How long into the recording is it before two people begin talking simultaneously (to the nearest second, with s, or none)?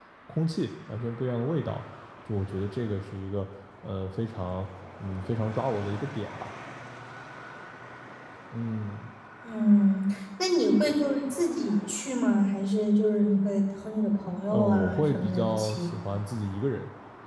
14 s